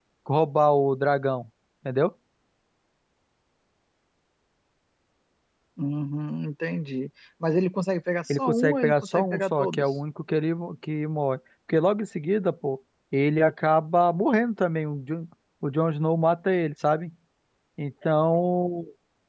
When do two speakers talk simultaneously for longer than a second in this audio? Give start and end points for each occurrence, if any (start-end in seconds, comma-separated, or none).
8.3-9.9